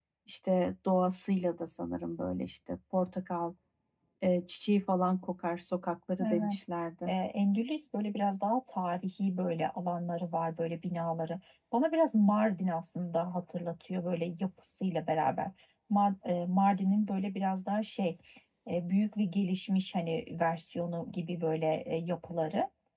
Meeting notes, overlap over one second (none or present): none